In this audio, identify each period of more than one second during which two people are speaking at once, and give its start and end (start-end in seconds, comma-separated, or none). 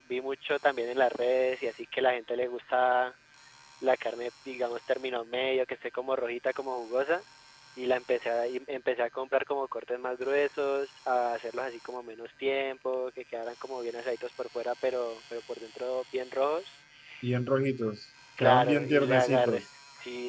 18.4-19.6